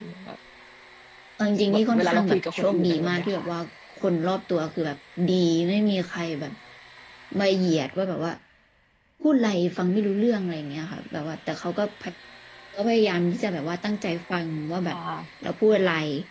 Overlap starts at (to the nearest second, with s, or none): 2 s